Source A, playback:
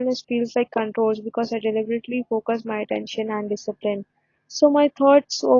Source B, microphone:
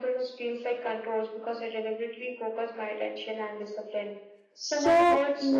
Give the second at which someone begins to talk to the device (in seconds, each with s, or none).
4.6 s